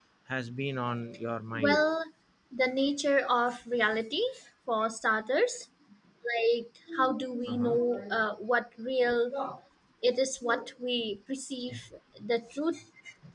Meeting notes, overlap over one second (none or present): none